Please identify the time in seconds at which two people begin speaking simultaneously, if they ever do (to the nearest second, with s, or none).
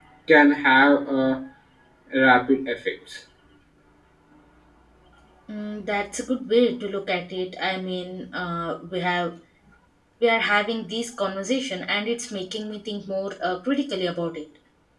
none